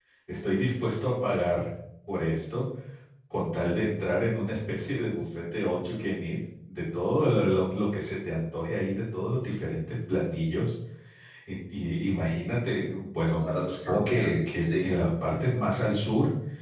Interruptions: present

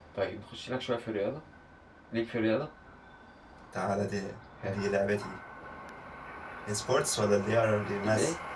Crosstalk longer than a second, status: none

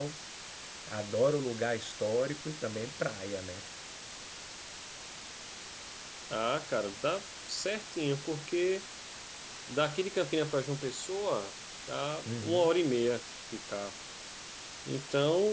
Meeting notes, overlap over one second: none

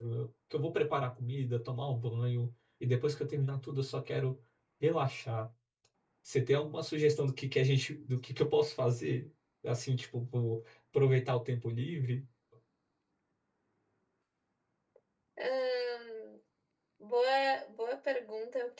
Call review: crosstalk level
none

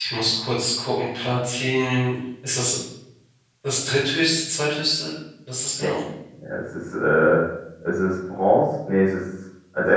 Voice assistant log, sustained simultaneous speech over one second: none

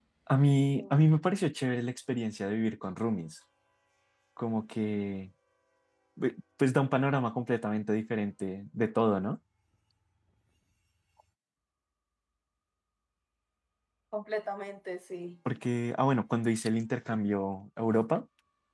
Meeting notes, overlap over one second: none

